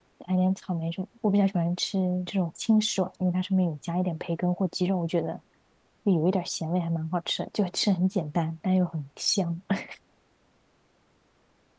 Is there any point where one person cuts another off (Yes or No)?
No